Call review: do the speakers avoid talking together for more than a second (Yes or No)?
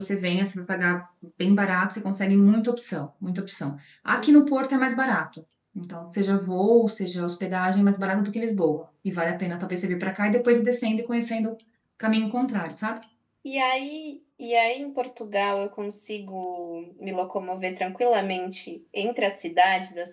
Yes